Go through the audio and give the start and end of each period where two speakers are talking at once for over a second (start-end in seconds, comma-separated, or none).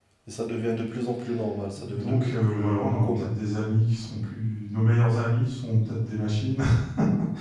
1.8-3.3